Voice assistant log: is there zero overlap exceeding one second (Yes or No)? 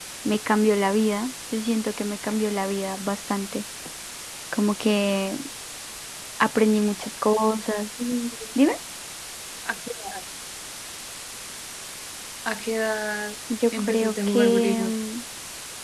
No